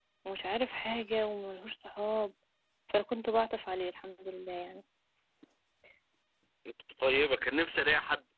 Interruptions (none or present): none